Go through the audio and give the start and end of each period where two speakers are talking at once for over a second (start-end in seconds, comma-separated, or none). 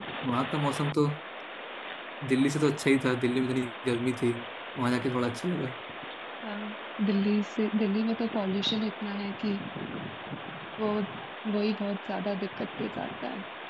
none